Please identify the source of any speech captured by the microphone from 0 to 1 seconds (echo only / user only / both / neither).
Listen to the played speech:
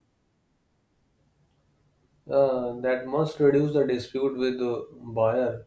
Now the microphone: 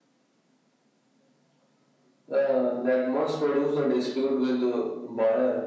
neither